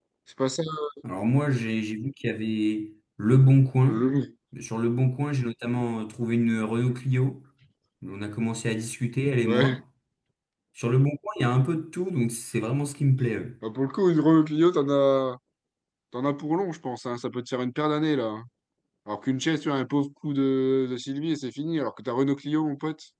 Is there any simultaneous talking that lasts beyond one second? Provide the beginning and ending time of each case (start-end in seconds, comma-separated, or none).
none